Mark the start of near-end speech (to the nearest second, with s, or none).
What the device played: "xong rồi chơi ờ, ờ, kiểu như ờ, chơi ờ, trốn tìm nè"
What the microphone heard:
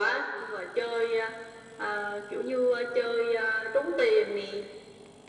none